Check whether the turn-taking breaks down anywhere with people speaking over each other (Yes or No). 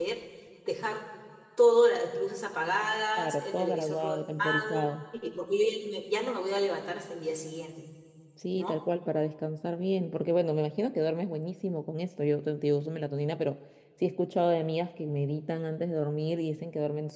Yes